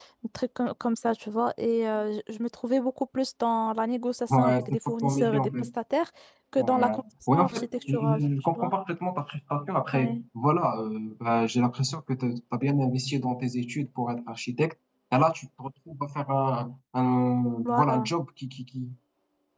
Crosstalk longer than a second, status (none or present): present